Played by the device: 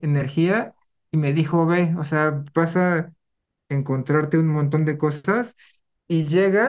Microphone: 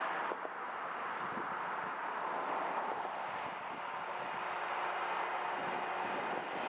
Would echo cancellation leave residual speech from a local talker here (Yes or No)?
No